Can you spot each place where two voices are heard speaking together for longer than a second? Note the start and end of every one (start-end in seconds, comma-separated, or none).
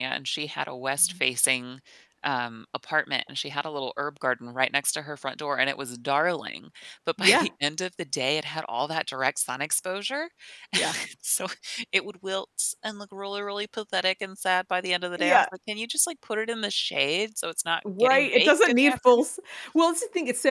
18.0-19.2